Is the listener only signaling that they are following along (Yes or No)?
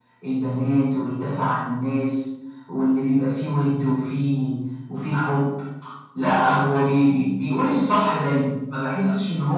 No